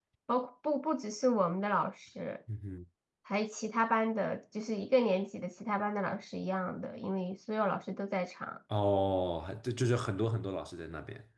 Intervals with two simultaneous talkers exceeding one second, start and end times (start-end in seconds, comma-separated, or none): none